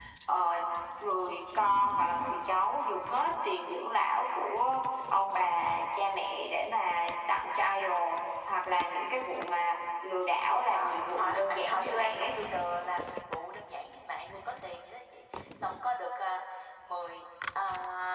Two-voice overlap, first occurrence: 10.5 s

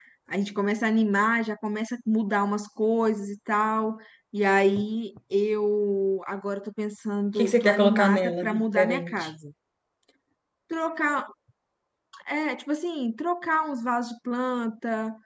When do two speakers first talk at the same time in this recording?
7.3 s

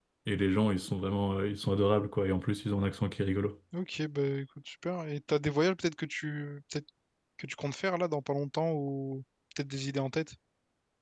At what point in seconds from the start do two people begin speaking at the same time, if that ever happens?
none

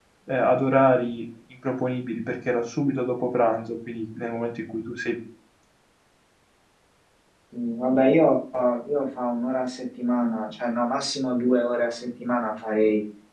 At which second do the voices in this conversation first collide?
none

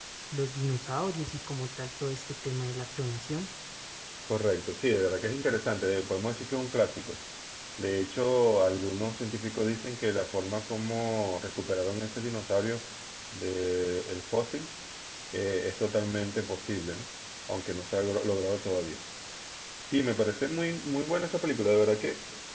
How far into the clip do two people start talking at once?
none

